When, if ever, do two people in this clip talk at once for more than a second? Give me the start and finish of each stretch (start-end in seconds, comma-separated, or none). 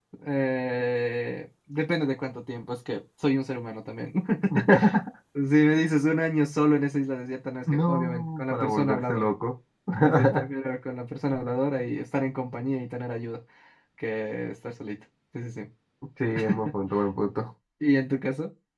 7.7-9.3